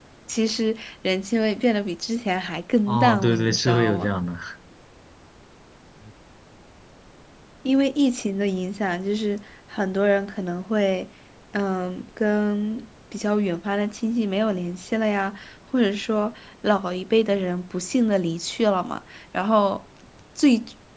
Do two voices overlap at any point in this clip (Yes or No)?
Yes